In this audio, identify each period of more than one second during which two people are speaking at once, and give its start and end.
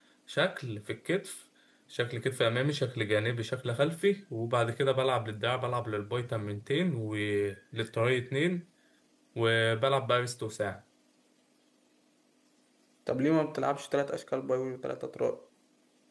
none

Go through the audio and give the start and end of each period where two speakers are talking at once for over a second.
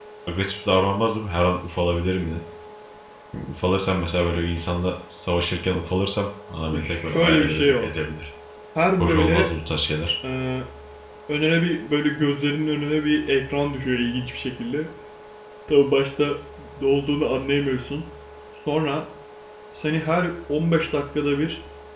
6.7-7.9

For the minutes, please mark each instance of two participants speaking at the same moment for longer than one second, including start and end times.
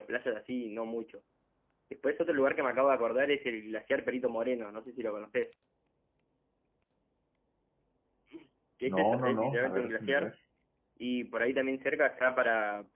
8.9-10.3

